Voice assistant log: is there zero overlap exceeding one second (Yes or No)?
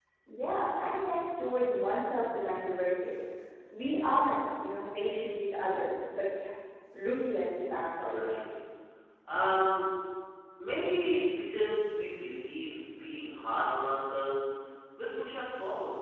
Yes